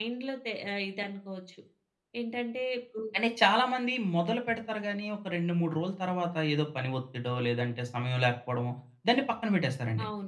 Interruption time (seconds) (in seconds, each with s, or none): none